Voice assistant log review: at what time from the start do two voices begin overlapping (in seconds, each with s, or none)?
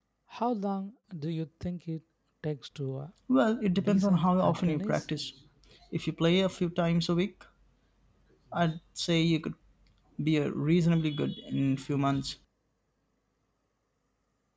3.8 s